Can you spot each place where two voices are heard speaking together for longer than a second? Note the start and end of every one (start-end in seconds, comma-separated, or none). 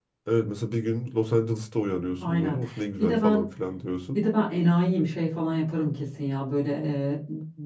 none